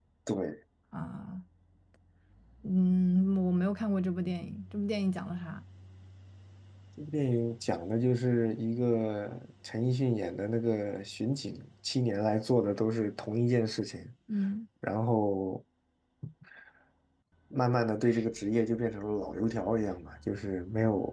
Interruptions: none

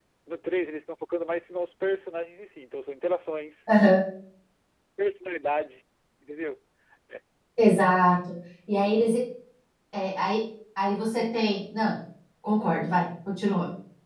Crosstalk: none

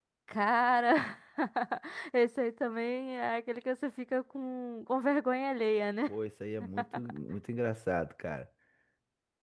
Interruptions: none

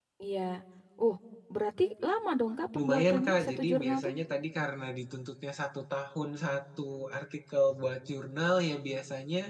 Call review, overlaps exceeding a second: present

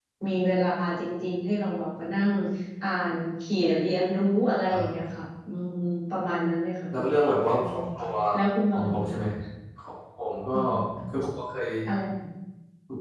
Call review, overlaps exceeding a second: none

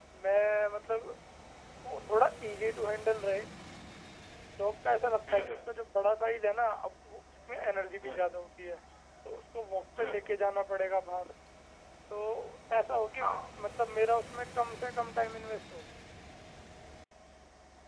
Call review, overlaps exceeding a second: none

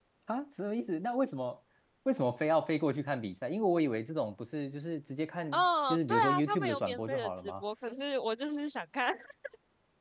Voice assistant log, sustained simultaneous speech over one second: present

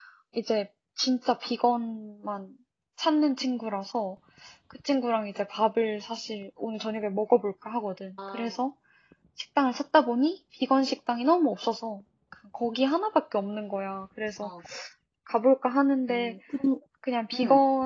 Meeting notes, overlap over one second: none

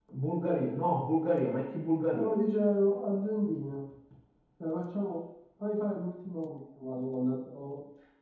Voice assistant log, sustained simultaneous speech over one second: none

